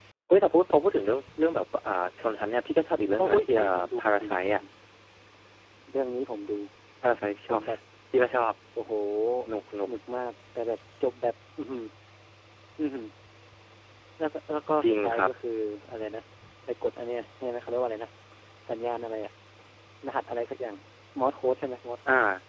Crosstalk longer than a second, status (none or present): present